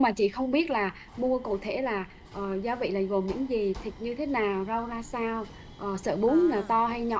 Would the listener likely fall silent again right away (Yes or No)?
Yes